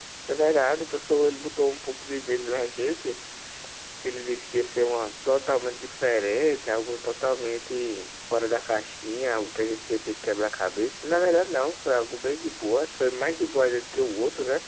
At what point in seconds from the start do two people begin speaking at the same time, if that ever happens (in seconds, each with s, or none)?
none